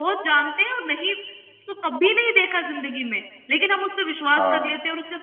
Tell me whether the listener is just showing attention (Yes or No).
Yes